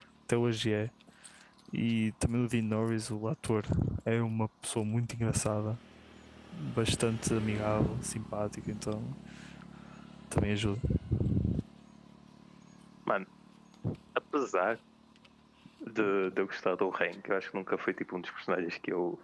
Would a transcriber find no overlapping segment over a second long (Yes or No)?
Yes